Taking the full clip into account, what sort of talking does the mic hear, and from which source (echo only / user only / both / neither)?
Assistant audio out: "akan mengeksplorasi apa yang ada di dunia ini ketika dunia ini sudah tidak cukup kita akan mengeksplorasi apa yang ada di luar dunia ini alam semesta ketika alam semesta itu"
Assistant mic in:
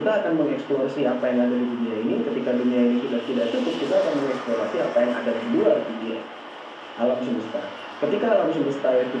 echo only